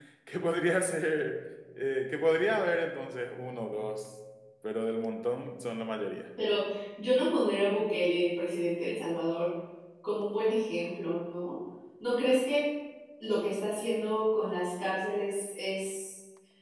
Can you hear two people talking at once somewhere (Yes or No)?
No